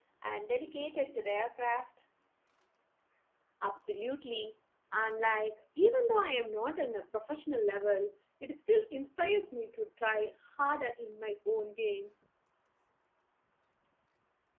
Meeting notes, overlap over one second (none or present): none